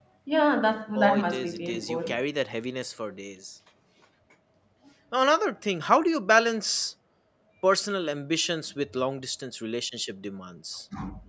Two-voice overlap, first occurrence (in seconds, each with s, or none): 0.9 s